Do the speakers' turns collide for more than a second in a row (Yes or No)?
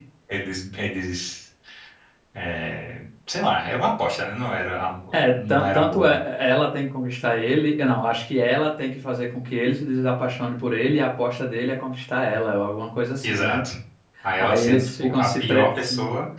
Yes